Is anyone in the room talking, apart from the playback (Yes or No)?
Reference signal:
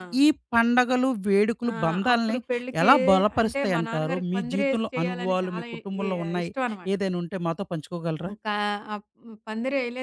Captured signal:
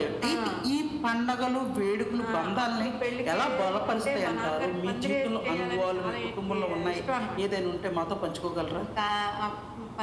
No